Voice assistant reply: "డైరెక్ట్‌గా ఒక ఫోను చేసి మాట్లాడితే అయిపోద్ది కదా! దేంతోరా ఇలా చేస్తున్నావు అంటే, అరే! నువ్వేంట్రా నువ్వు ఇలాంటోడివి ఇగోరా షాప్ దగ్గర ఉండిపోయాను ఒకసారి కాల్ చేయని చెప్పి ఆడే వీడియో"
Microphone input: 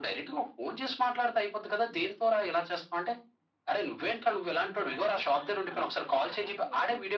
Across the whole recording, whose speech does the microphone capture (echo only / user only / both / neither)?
both